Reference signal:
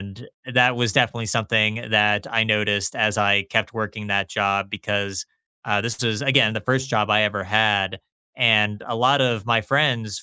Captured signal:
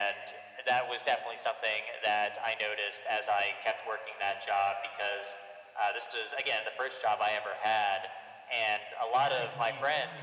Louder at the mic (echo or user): echo